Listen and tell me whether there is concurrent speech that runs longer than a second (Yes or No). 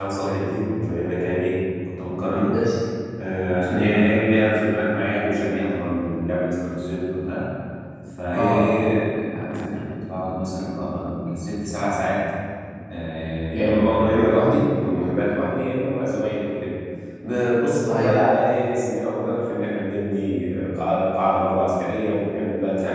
No